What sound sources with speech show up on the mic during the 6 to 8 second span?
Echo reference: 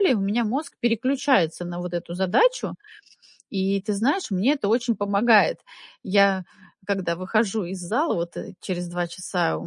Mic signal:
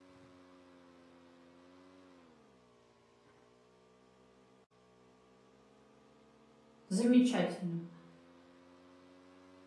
user only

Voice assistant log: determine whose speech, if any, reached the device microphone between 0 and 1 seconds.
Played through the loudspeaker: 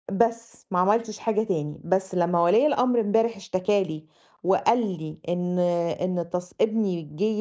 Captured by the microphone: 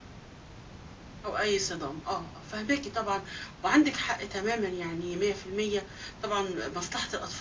neither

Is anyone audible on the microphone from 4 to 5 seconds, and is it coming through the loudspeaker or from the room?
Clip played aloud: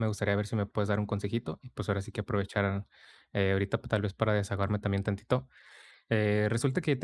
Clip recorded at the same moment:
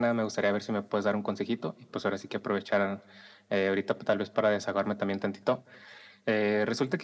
echo only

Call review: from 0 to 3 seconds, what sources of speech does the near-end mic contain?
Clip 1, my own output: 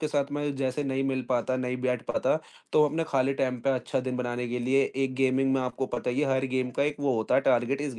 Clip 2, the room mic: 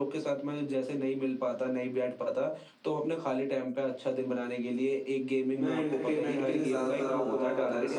echo only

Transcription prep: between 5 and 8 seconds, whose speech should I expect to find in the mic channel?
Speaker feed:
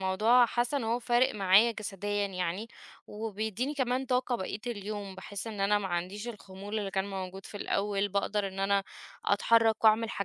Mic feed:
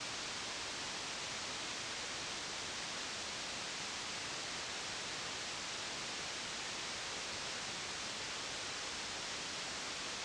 neither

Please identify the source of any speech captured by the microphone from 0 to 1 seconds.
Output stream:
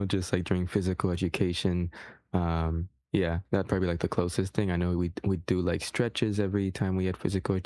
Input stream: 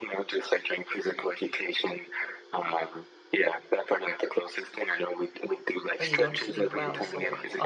echo only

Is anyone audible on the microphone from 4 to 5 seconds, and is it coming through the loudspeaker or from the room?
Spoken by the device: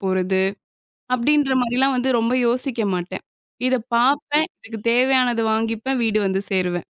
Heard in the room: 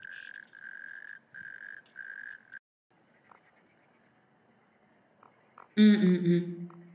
neither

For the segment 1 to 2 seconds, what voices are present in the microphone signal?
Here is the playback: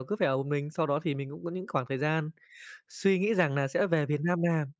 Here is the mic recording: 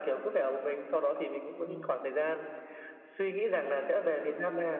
both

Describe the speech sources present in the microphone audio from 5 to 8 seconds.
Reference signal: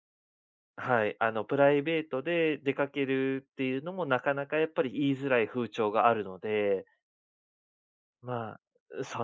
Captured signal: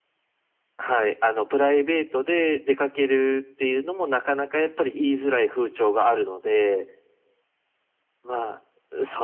echo only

